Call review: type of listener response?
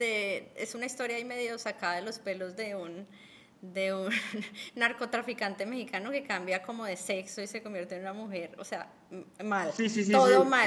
taking over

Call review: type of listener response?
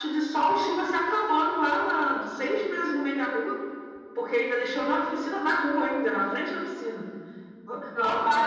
listening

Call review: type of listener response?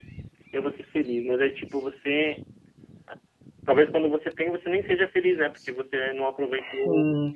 taking over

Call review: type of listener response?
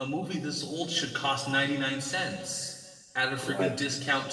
listening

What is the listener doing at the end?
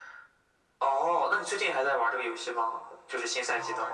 taking over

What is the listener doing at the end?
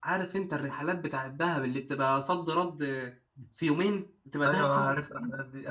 taking over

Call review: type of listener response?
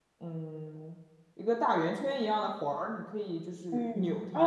taking over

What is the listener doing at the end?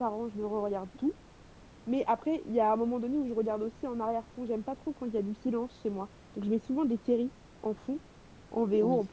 listening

